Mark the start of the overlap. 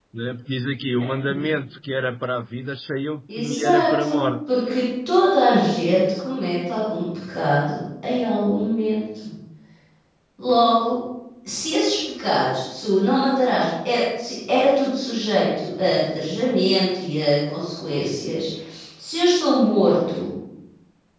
3 s

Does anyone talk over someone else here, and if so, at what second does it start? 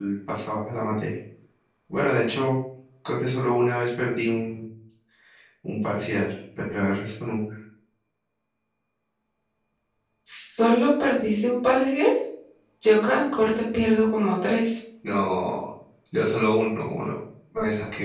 none

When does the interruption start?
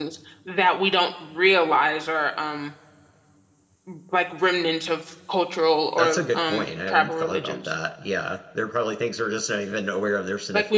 6 s

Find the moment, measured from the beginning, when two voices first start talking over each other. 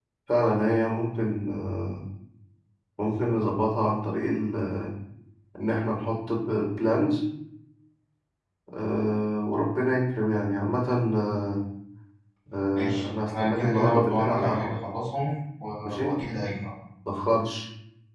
13 s

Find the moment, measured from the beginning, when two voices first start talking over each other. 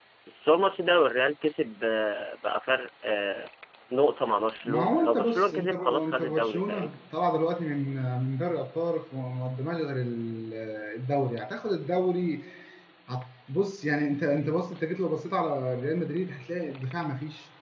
5 s

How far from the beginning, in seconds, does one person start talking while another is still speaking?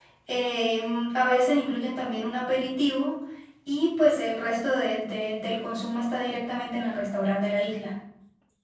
none

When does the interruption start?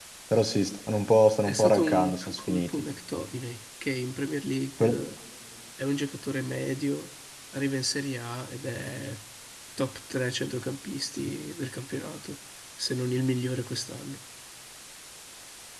1 s

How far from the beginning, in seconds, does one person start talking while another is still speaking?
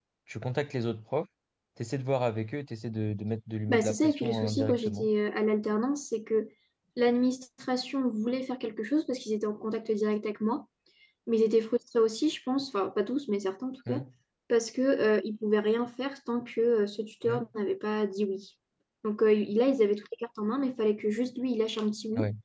4 s

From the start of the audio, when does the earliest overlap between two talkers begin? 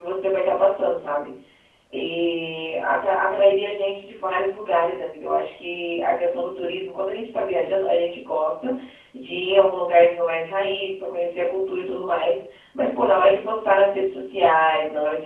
none

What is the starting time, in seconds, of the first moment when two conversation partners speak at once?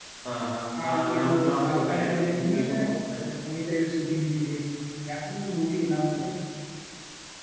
1 s

